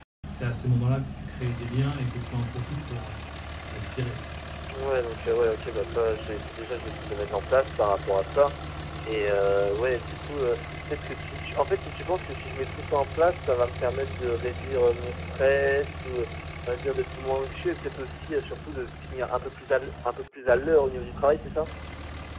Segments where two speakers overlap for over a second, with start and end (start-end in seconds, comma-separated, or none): none